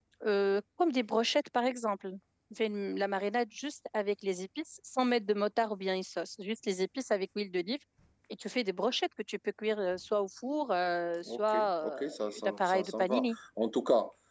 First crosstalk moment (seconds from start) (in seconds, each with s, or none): 11.2 s